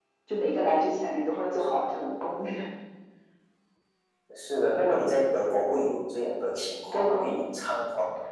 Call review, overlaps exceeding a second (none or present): none